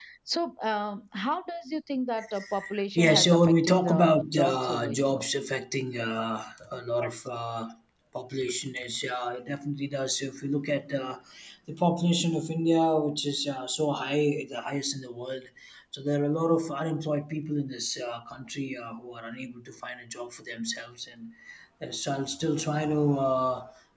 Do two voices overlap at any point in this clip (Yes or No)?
Yes